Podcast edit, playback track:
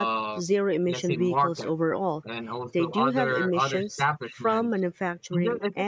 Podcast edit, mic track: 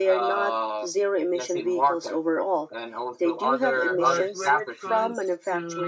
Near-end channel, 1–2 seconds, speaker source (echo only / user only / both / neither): echo only